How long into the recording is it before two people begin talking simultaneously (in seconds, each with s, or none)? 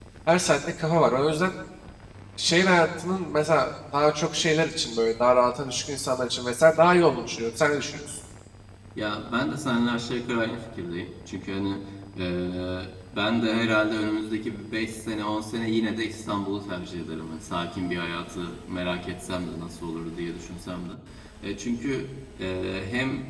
none